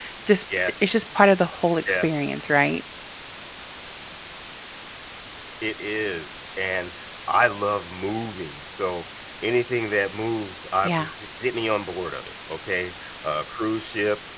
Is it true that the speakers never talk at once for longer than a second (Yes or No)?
Yes